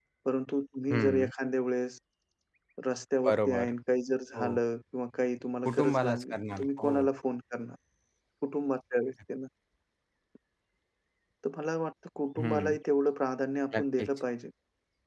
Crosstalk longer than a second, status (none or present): present